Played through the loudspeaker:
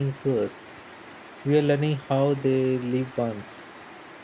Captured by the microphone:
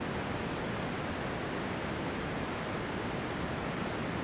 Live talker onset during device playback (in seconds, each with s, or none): none